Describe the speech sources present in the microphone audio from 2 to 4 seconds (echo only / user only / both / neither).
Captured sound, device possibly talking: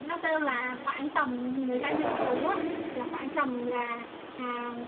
both